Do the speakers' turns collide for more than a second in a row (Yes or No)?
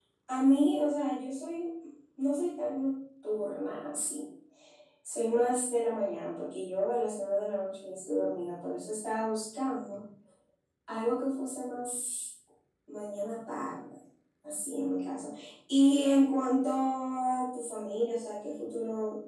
No